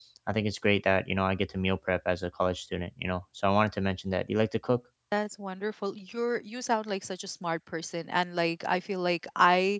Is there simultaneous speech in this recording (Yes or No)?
No